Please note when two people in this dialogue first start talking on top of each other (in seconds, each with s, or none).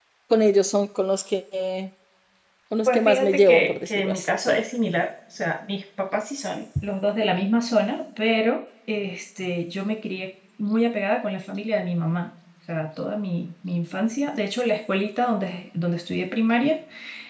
2.9 s